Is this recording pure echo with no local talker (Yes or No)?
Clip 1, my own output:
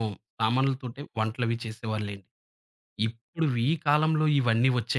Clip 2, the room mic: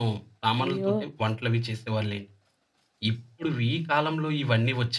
No